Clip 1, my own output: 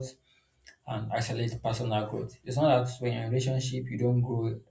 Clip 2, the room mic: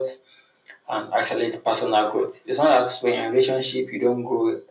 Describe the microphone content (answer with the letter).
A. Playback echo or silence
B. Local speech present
A